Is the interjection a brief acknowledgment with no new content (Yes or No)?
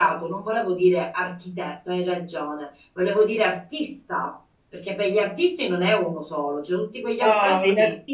No